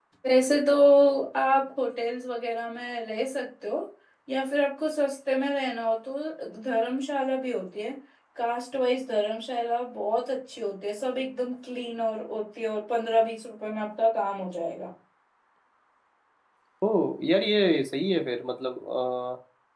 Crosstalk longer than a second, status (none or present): none